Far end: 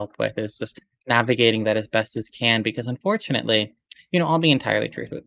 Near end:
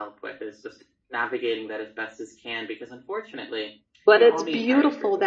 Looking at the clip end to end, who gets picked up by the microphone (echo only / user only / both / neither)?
both